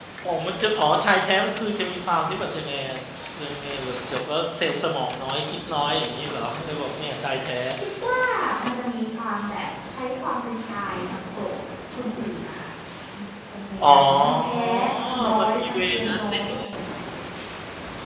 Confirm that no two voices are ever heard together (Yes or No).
No